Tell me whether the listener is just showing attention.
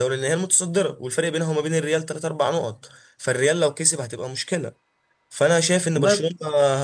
Yes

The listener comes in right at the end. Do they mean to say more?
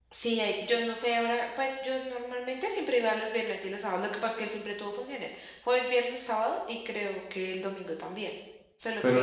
Yes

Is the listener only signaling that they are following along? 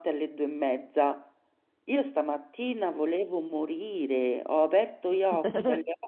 Yes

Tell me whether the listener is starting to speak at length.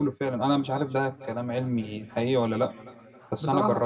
Yes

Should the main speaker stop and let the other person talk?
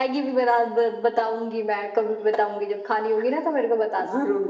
Yes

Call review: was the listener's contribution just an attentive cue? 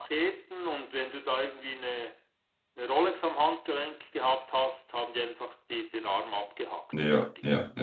No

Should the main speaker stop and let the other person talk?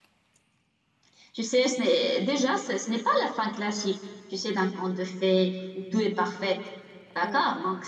No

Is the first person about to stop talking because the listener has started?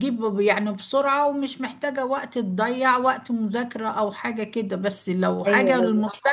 No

